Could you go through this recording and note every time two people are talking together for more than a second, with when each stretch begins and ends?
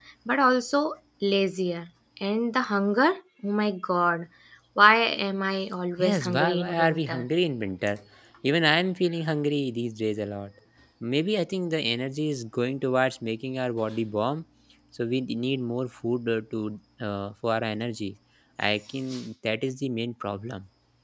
6.0-7.2

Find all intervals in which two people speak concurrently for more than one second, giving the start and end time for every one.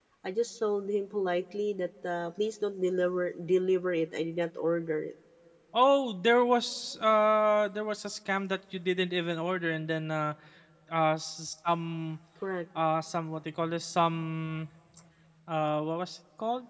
none

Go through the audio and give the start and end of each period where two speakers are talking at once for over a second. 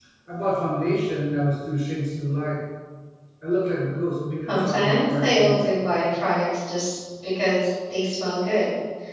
4.5-5.8

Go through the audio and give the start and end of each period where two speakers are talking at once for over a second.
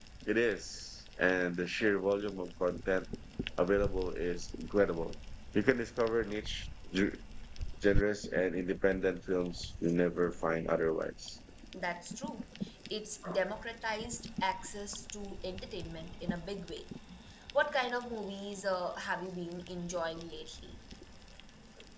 none

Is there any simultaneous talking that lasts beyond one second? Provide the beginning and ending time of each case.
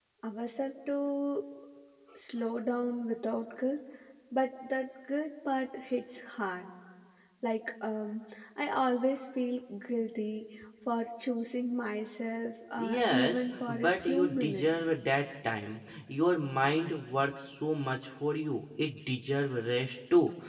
12.8-14.7

